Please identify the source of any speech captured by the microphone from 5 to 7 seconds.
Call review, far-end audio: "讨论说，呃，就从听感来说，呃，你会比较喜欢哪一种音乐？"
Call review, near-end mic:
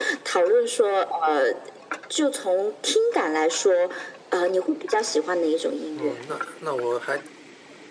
both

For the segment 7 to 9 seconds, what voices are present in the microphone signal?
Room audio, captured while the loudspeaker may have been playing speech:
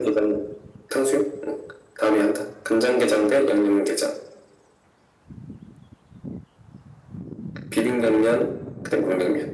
echo only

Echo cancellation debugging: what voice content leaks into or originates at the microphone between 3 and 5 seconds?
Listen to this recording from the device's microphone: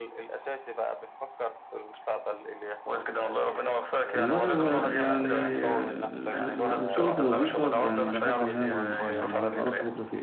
both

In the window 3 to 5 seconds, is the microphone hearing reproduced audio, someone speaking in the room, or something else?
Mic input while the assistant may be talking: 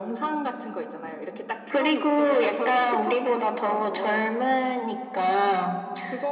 echo only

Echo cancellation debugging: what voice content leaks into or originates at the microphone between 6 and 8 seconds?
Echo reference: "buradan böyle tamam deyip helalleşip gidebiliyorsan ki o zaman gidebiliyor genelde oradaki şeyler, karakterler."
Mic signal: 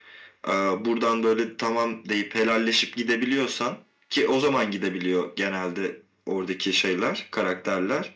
echo only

